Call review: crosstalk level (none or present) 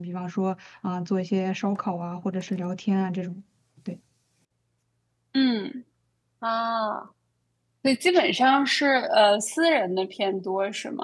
none